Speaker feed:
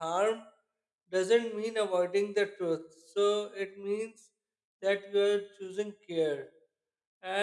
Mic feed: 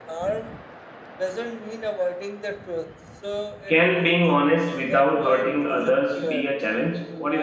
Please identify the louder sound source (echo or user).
user